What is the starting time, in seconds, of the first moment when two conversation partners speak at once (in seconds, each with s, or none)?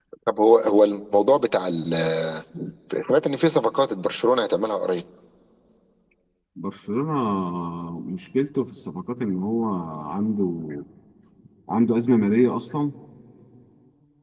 none